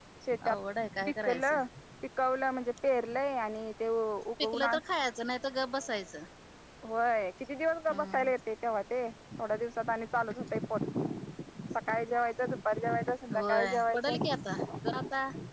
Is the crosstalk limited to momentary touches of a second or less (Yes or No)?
No